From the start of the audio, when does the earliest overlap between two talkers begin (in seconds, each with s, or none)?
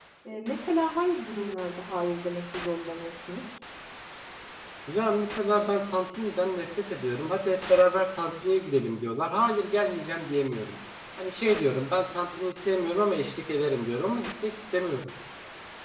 none